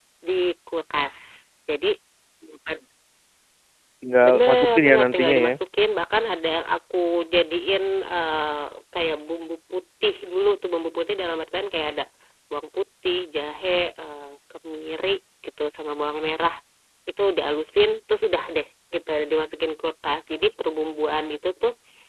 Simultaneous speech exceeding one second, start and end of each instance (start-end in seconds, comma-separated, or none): 4.2-5.6